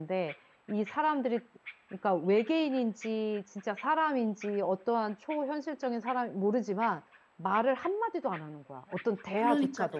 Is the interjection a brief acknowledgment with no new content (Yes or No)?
No